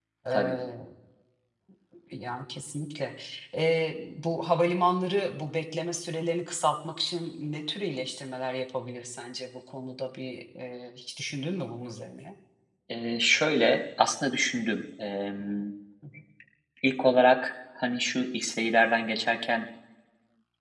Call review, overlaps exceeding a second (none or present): none